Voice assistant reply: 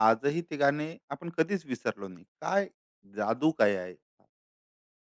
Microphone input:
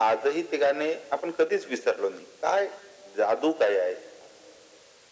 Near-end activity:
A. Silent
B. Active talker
A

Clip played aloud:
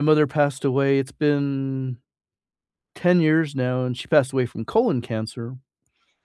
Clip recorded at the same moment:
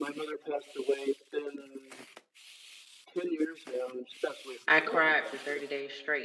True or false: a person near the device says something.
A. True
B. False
A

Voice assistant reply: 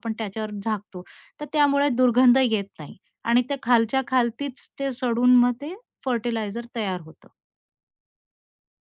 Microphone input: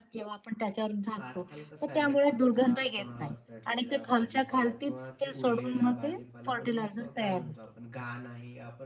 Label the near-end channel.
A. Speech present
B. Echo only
A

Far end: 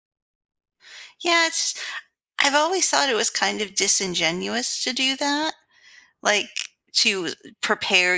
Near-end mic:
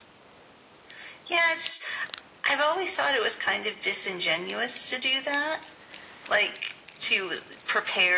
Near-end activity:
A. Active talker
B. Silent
B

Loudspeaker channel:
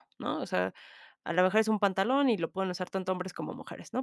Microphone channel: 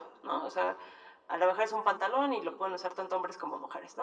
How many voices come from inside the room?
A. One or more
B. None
B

